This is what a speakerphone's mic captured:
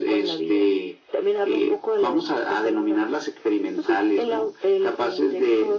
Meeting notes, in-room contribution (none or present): none